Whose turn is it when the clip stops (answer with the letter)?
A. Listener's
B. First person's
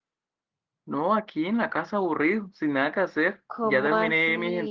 A